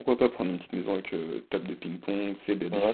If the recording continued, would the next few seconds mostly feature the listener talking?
Yes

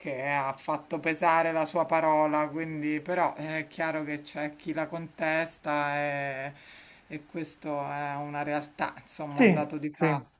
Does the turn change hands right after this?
Yes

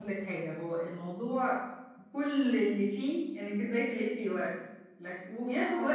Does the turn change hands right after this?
No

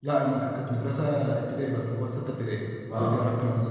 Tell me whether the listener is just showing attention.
Yes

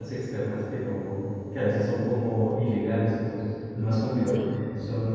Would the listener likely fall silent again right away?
Yes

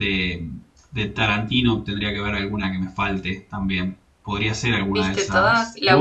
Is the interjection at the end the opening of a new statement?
Yes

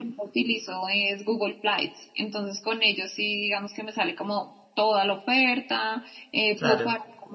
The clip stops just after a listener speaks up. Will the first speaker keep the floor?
Yes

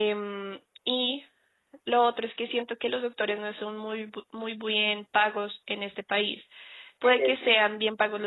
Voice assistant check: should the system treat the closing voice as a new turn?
No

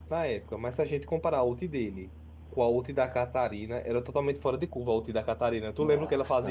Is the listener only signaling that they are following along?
No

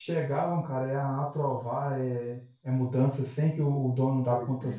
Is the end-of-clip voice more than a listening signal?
No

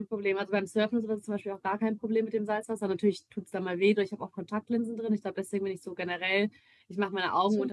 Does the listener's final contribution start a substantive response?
No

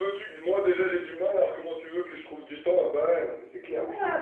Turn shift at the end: Yes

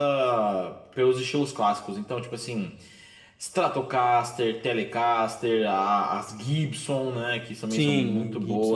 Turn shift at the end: Yes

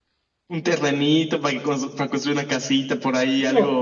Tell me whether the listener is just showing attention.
No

